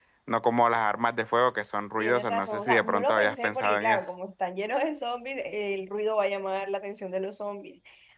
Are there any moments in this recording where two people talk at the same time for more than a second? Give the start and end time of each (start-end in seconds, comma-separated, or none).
2.0-4.0